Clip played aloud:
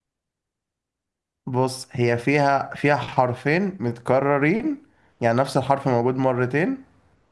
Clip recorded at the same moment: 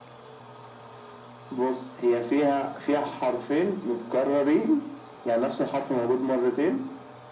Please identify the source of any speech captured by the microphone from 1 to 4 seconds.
echo only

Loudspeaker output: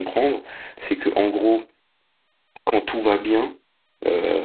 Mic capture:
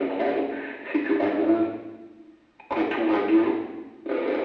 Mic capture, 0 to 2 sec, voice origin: echo only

